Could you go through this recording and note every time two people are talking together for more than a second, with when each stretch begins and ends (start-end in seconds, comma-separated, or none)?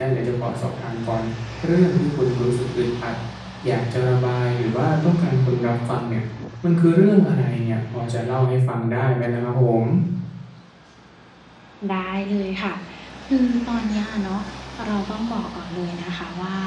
none